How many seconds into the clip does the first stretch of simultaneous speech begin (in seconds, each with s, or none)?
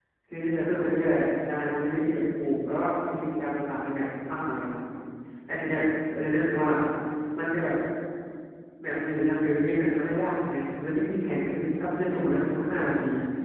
none